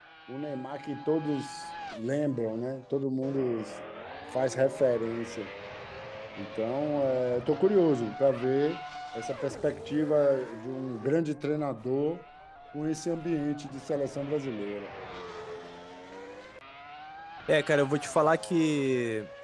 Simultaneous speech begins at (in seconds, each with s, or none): none